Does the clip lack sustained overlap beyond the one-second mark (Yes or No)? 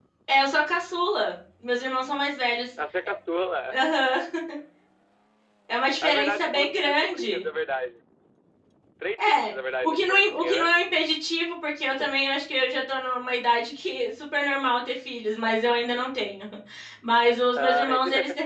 No